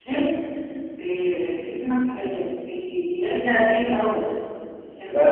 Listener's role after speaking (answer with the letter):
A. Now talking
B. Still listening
A